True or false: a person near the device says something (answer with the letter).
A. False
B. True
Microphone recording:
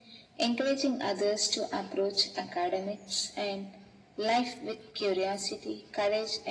A